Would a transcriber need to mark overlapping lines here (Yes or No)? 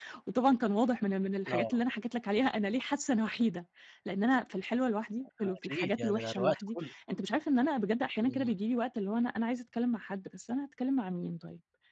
Yes